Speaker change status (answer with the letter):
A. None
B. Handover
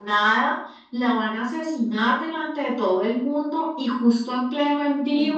A